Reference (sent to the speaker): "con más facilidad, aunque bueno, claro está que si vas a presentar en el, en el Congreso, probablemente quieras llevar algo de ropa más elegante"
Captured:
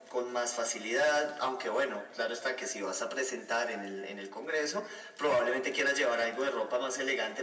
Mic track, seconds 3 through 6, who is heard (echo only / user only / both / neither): echo only